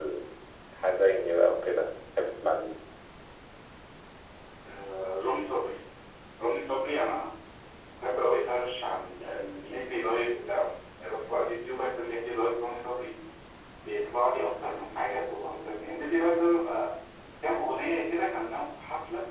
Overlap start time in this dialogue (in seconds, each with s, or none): none